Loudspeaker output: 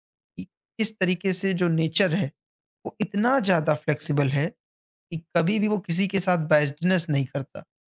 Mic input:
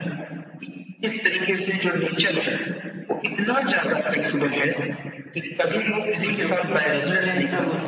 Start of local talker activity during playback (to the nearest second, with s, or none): 5 s